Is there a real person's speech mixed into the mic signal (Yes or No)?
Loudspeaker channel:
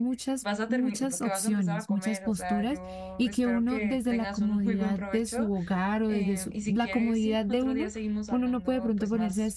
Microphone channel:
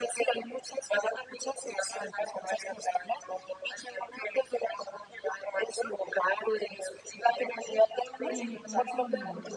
Yes